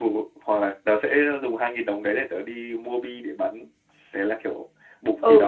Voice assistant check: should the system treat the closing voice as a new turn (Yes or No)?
Yes